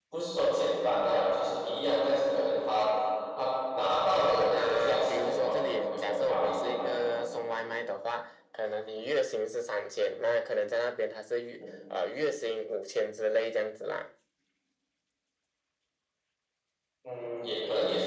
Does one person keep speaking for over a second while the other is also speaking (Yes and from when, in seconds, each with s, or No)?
Yes, from 4.6 s